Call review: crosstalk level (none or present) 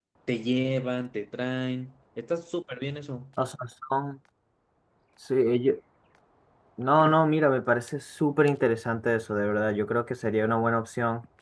none